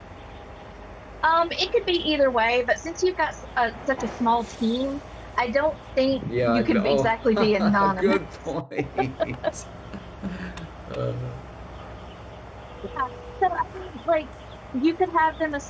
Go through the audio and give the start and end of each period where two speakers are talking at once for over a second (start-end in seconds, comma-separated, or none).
6.2-8.2